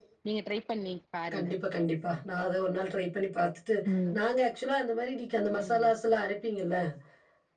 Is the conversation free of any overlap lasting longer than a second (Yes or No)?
Yes